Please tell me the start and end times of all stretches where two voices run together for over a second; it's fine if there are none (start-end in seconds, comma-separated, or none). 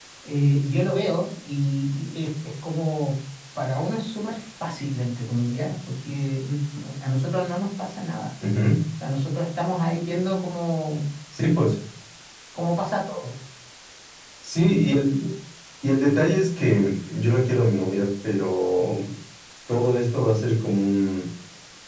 none